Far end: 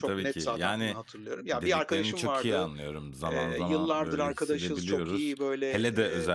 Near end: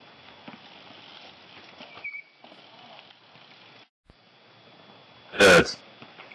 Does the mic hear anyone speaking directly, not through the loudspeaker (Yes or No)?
Yes